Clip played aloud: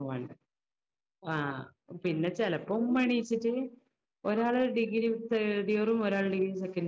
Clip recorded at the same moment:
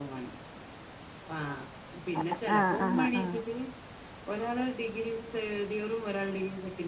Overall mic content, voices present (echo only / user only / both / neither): both